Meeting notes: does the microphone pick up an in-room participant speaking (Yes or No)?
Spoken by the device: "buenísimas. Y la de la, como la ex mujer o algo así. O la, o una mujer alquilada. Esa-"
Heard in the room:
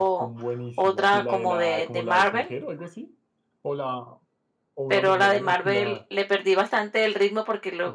Yes